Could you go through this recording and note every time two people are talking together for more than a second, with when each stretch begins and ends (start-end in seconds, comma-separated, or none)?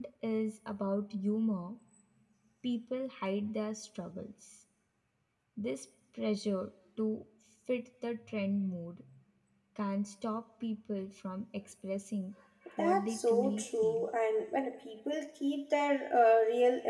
12.8-14.1